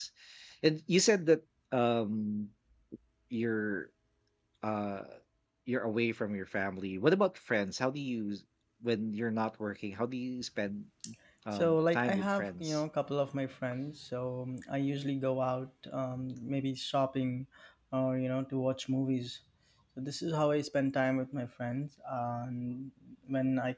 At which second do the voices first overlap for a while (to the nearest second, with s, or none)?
12 s